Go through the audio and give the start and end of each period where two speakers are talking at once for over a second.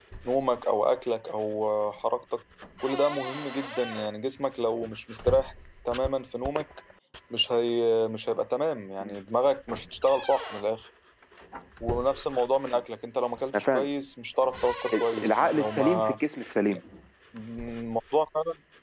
14.9-16.2

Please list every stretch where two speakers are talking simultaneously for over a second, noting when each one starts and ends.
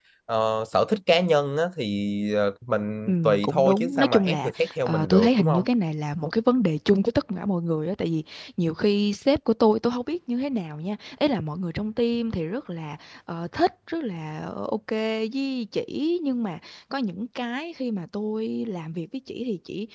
3.1-5.6

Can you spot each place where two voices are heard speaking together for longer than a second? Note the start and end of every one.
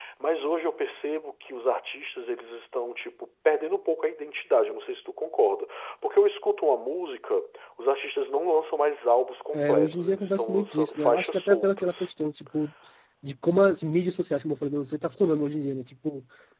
9.5-12.1

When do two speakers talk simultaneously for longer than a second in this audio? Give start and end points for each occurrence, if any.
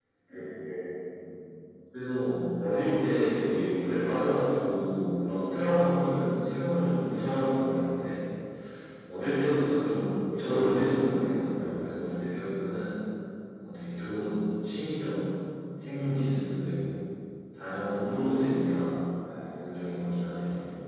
none

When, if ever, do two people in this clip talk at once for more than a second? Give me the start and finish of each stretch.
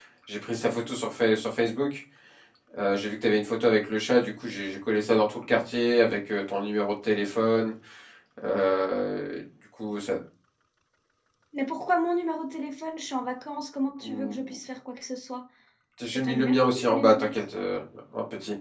16.1-17.3

